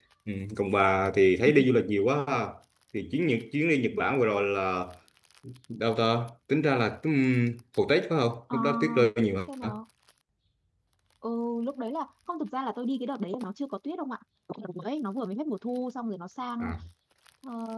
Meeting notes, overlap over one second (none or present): none